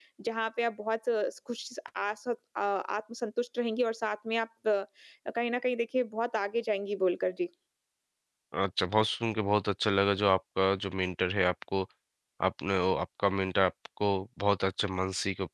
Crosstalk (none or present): none